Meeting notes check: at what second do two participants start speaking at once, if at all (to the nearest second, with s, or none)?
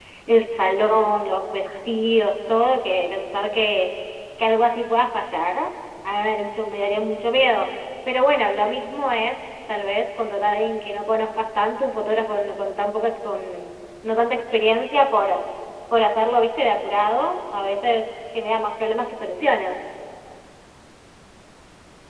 none